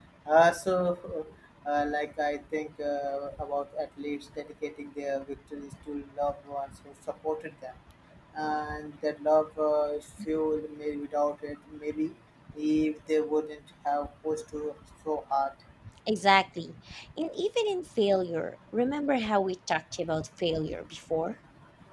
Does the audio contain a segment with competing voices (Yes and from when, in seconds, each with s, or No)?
No